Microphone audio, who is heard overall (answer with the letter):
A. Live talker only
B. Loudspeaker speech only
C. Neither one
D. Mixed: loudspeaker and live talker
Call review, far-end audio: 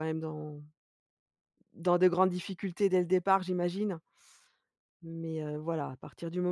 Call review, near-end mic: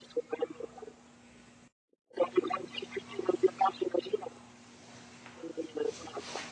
B